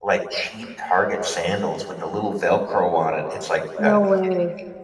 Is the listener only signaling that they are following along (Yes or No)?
Yes